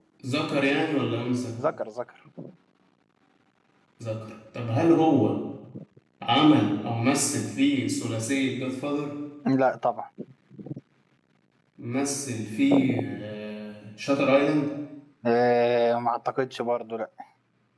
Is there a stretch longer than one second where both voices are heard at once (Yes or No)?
No